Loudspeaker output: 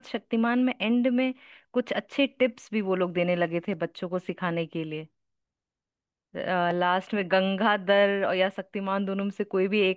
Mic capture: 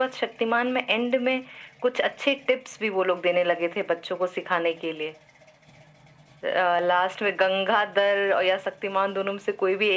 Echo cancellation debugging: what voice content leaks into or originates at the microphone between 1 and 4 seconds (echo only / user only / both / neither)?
echo only